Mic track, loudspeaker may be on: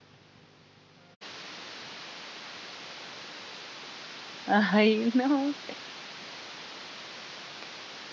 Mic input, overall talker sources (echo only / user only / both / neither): user only